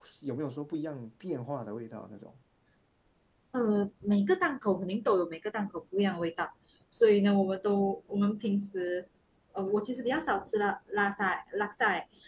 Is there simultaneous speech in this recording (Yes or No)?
No